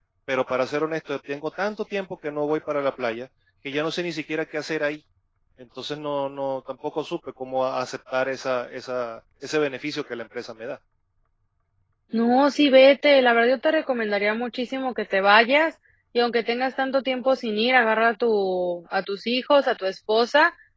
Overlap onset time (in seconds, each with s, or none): none